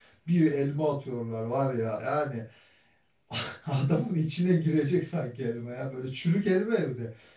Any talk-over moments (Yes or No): No